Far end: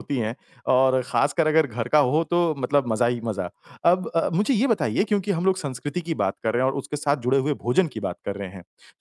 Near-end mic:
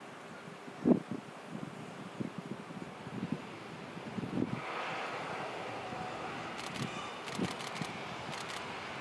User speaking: No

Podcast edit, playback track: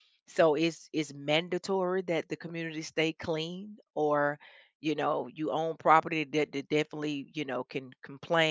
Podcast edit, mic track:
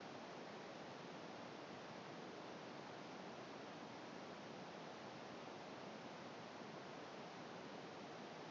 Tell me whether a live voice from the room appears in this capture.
No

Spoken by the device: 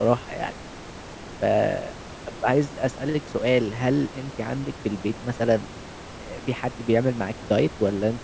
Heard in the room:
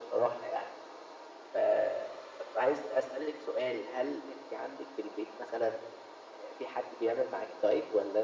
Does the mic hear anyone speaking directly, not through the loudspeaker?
No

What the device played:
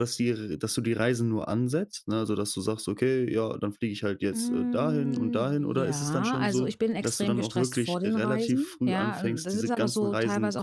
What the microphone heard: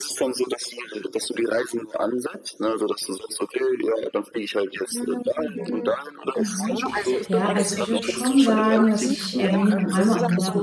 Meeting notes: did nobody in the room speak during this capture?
No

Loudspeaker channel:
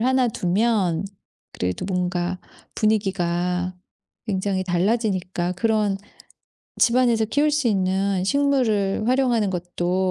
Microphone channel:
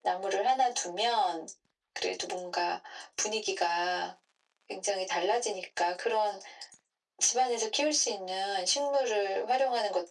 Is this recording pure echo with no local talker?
Yes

